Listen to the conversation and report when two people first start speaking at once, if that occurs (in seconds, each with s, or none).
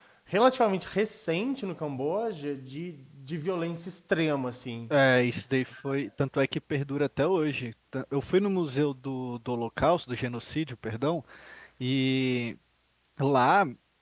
none